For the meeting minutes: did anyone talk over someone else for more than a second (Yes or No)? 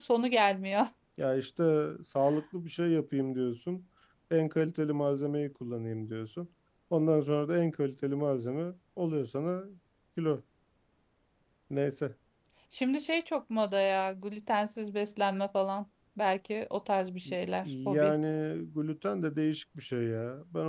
No